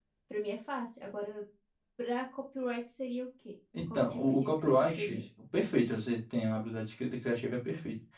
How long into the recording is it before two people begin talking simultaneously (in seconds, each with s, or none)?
3.7 s